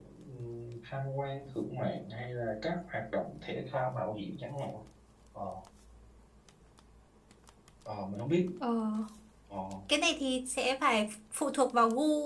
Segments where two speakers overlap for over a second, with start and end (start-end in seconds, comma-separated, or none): none